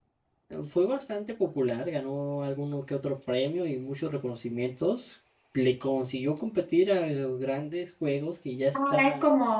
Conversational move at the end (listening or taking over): taking over